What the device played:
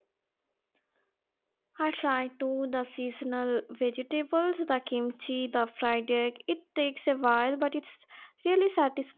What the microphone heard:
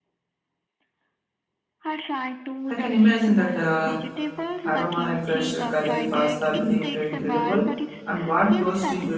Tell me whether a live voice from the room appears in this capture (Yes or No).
Yes